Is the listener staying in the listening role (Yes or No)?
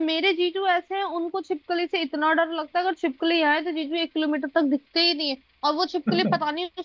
Yes